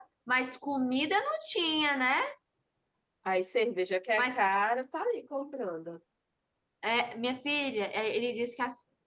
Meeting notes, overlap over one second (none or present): none